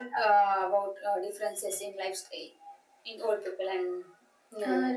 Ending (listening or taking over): taking over